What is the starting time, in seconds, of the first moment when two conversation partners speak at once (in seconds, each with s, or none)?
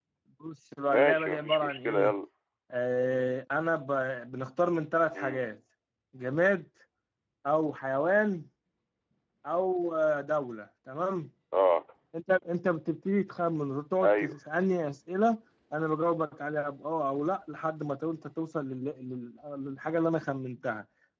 0.9 s